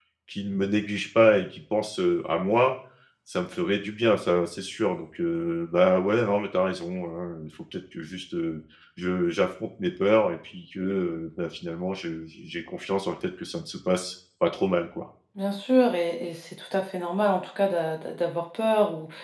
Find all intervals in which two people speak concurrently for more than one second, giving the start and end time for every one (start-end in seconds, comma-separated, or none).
none